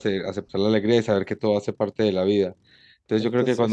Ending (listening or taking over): listening